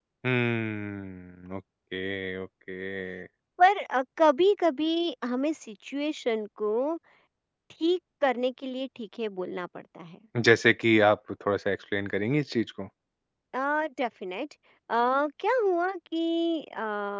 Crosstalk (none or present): none